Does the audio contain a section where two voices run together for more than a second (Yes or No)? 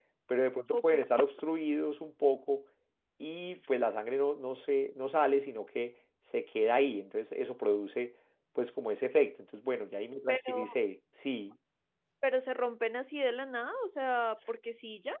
No